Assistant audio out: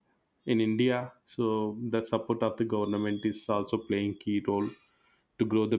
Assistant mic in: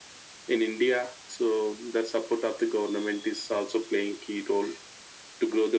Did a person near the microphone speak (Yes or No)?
No